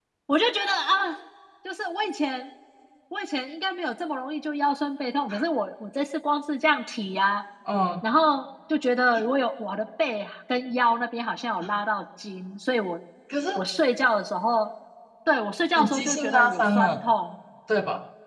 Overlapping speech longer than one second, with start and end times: 15.8-17.0

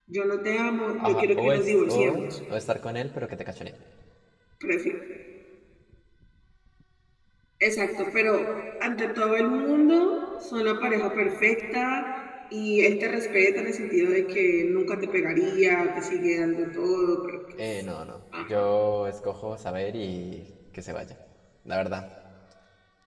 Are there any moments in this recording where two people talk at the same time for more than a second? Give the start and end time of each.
1.0-2.2

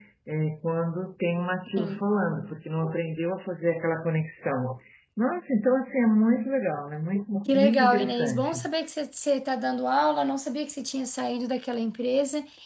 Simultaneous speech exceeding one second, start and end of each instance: 7.5-8.7

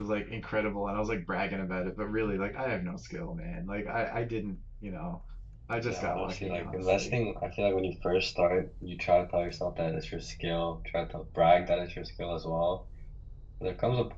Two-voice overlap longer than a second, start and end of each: 5.9-7.2

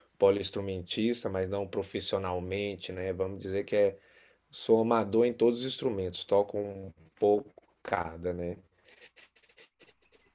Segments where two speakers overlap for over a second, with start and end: none

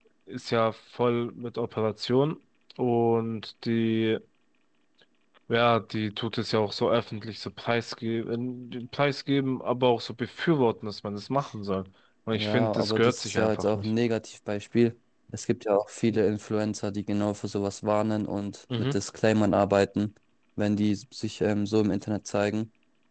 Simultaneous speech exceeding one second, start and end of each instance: 12.3-13.9

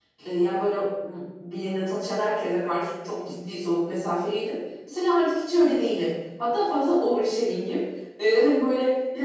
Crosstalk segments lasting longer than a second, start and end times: none

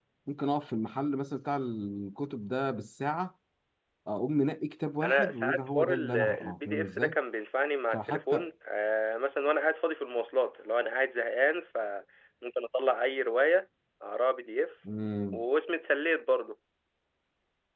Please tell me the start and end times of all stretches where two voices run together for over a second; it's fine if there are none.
5.0-7.2

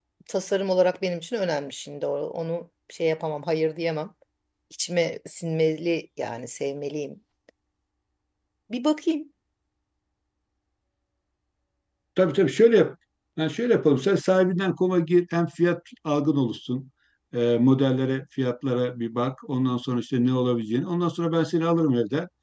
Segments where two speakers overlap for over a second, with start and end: none

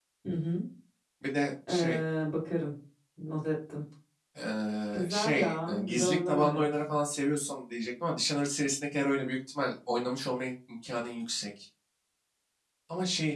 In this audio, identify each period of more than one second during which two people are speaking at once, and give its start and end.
4.9-6.7

